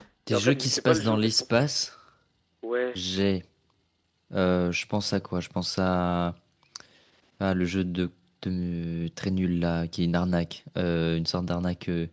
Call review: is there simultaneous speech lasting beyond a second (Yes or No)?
Yes